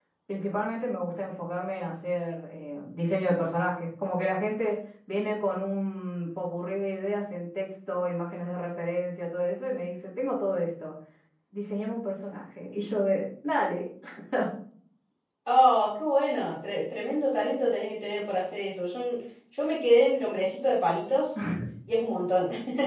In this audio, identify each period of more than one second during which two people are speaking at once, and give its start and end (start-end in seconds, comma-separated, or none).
none